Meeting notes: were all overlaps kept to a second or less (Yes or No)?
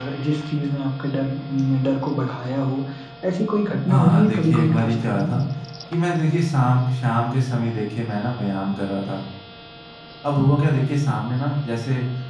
No